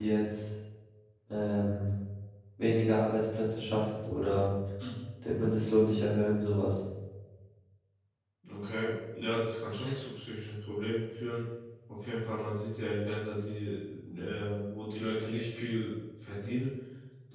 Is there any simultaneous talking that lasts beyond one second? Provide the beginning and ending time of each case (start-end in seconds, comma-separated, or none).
none